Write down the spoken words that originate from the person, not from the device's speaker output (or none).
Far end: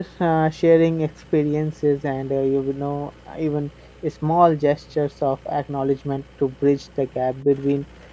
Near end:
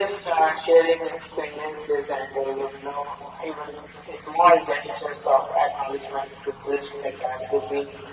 none